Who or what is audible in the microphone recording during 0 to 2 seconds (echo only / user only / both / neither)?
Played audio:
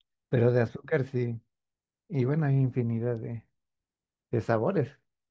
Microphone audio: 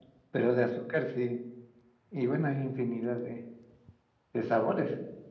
echo only